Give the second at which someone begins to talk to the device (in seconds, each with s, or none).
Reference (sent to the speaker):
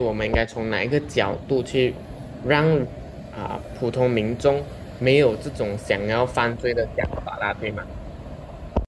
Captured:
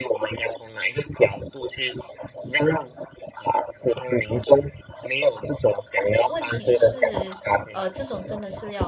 6.3 s